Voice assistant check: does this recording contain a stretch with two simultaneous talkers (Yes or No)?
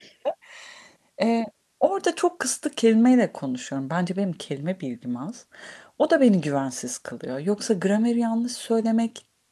No